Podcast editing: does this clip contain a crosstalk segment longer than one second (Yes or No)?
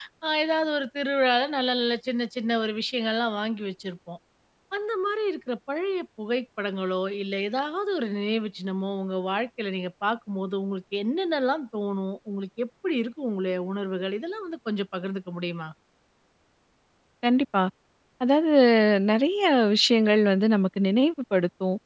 No